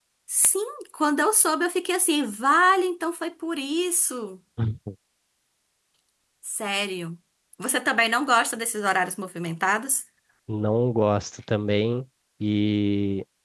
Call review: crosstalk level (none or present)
none